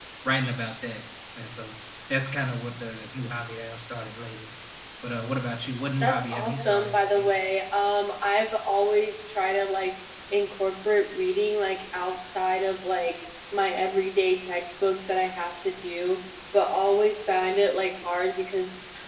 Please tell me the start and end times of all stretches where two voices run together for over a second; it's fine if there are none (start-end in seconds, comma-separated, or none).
6.0-7.4